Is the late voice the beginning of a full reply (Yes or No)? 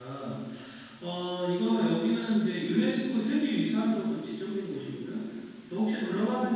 No